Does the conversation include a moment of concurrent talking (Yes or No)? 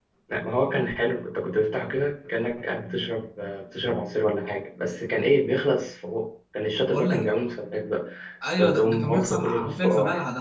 Yes